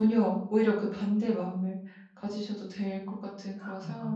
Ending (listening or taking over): taking over